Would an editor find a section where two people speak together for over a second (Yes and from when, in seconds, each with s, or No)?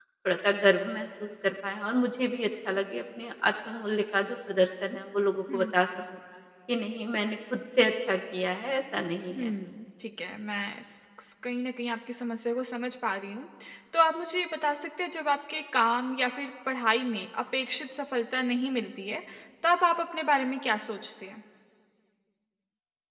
No